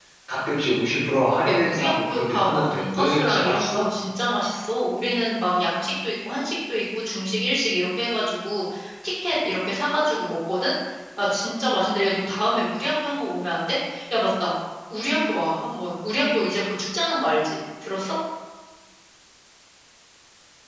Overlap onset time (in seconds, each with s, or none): 1.4 s